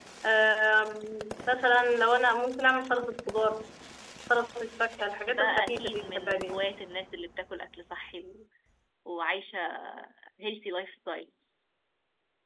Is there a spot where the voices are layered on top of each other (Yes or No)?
Yes